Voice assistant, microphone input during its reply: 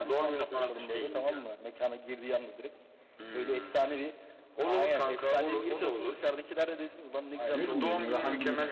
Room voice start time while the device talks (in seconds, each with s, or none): 7.5 s